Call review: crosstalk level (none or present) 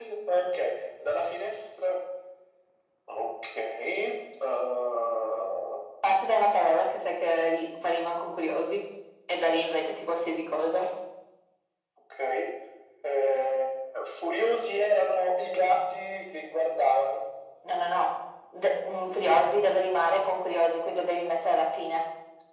none